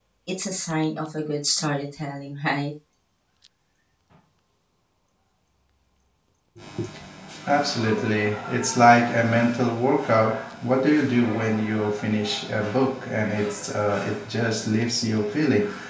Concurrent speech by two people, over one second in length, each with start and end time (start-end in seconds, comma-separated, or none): none